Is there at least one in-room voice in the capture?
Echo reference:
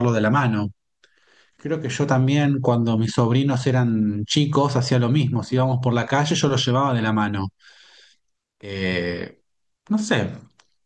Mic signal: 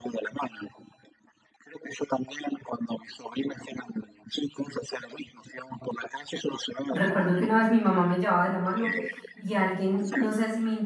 Yes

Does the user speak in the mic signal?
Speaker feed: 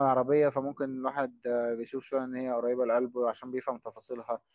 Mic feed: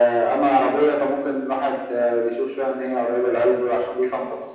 No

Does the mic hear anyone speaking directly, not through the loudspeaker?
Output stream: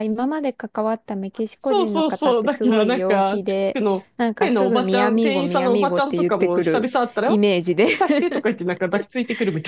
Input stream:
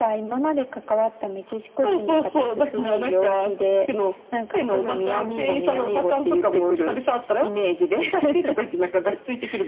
No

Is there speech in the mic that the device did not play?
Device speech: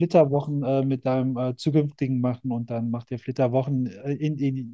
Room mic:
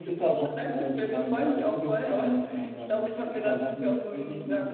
Yes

